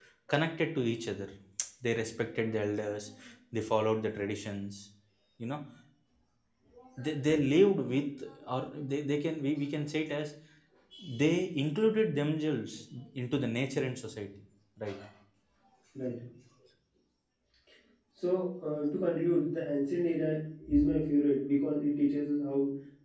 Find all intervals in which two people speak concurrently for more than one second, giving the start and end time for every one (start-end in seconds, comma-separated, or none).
none